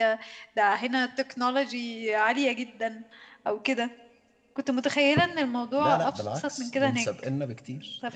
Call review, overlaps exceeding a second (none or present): present